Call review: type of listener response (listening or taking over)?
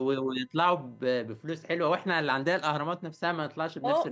taking over